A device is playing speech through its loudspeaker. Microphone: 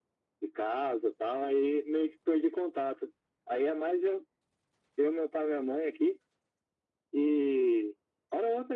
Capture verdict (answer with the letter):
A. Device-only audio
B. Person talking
A